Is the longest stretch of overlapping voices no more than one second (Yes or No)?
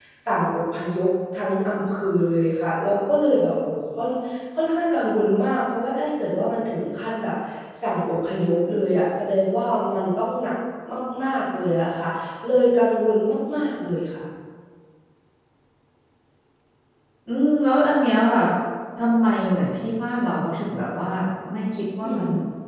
Yes